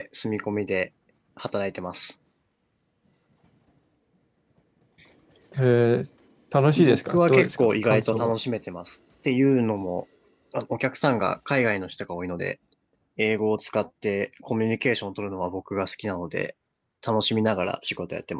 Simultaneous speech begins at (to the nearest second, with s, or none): 7 s